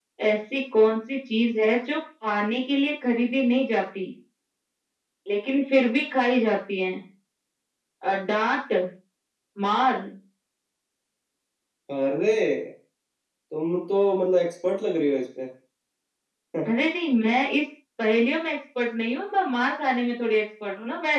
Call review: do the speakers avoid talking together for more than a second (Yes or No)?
Yes